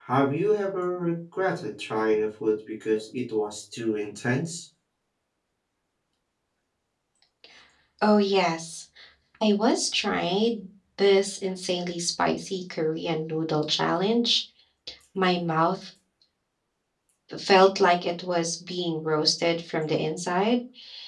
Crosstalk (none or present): none